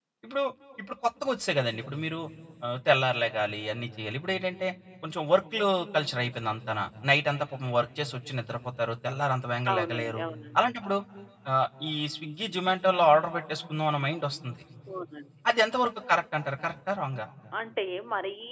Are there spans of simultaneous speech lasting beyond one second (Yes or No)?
No